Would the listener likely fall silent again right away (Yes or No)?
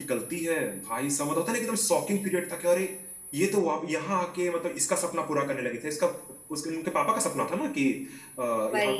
Yes